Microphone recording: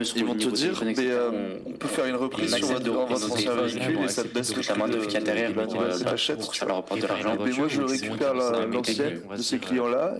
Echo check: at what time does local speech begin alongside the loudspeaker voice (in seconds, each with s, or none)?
2.3 s